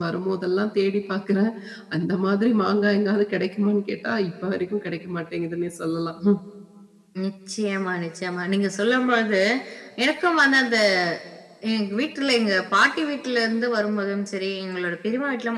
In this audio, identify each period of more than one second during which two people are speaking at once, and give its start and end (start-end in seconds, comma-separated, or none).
none